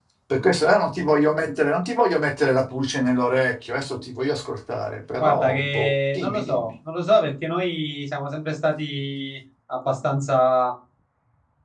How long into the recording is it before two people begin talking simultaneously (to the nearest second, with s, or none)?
5 s